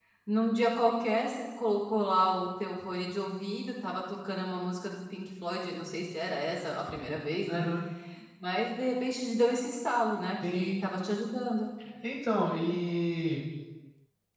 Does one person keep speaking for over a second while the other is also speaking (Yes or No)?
No